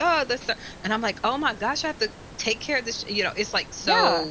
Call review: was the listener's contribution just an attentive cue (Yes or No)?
No